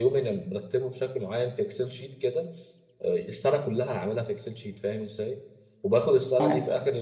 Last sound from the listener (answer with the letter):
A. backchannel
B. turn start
A